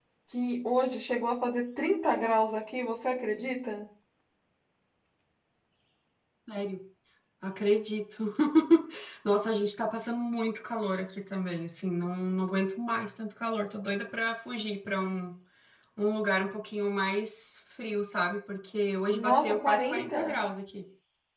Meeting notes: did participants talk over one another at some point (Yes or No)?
Yes